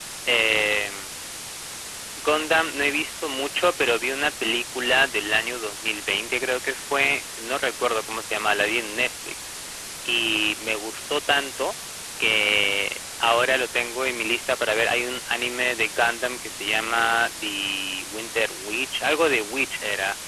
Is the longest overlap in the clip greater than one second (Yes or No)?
No